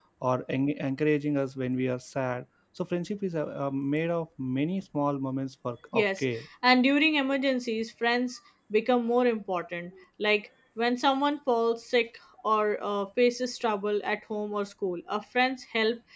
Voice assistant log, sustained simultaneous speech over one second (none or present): none